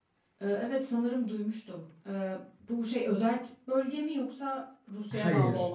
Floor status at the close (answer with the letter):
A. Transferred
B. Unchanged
A